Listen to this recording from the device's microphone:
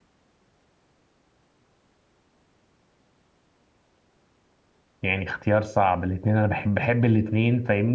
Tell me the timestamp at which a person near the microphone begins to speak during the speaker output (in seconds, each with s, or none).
5.0 s